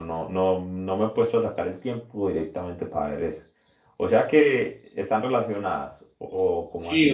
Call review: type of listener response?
taking over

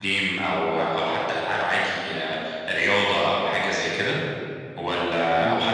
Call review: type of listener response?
listening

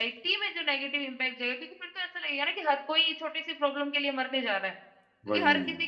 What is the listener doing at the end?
listening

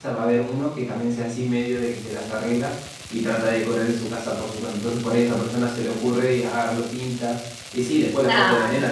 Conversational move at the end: listening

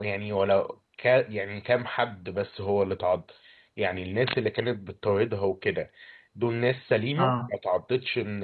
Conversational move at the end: listening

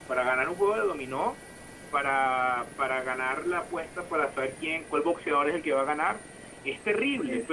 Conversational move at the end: listening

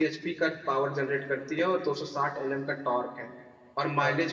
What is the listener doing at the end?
listening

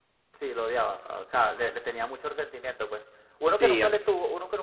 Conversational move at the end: listening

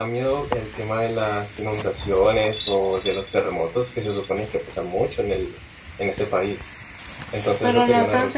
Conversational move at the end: taking over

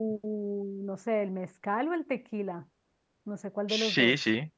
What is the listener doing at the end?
taking over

